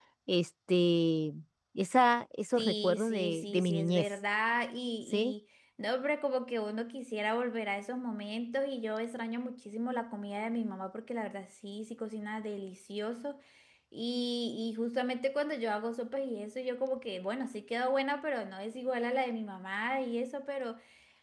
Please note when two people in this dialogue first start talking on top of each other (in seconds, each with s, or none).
2.6 s